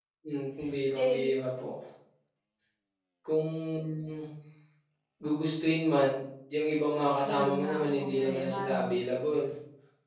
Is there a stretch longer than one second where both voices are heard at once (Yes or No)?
Yes